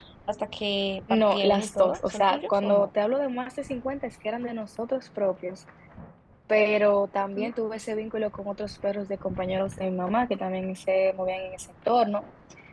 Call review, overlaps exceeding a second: present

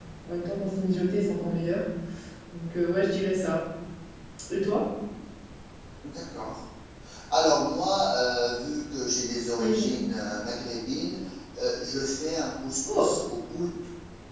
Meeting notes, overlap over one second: none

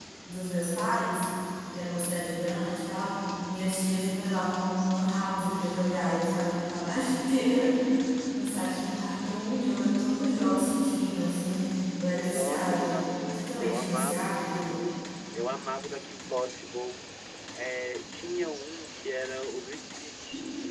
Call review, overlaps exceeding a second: present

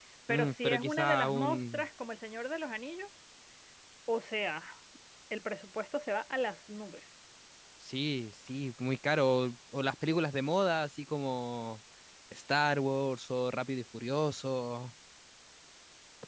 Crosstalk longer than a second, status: present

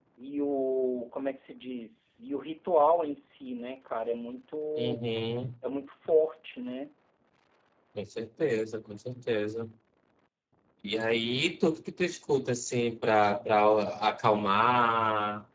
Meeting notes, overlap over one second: none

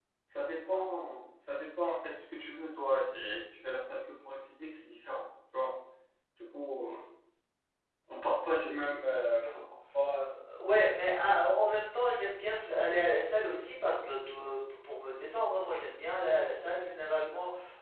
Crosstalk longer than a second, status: none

